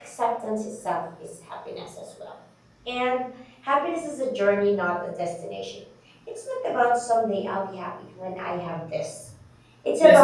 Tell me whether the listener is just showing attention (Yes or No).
Yes